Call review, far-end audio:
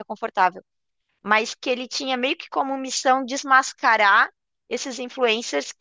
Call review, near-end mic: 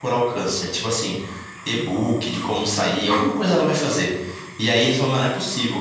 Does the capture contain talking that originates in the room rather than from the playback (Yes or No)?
Yes